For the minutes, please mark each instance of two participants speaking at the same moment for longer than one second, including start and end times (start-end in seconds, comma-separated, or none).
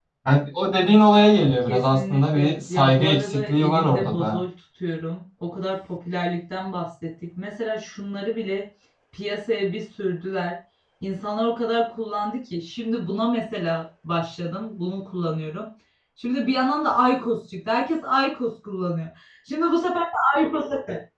1.7-4.4